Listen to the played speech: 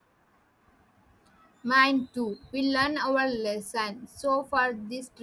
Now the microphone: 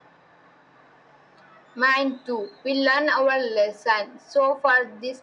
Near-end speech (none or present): none